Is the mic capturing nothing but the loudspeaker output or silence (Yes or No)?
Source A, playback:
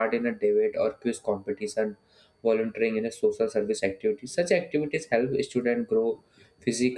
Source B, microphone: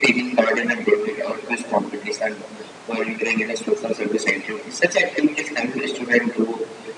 Yes